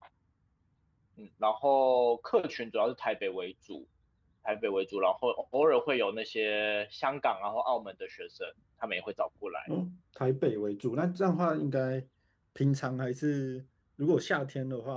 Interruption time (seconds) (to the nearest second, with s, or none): none